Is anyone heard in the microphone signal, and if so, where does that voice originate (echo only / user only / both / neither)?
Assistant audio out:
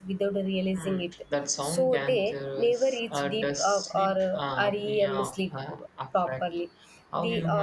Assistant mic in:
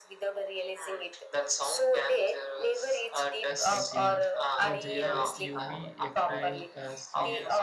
both